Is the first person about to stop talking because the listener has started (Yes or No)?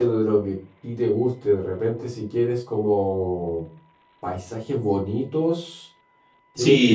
Yes